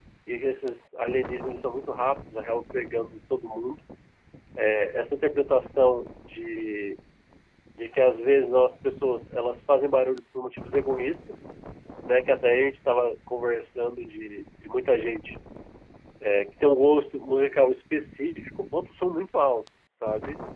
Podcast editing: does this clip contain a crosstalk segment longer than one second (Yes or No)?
No